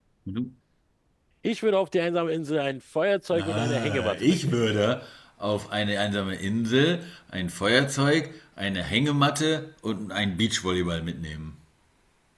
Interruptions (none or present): present